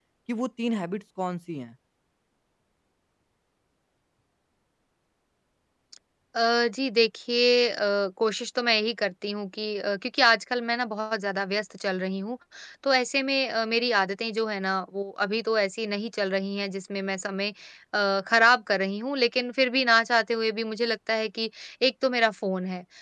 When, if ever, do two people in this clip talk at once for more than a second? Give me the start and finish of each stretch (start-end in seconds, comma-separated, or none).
none